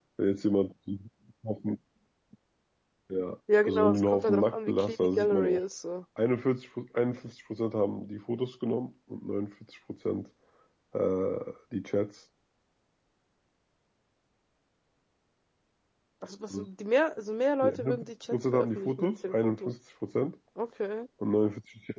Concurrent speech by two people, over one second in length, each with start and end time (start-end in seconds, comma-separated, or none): 3.6-5.6, 17.6-19.7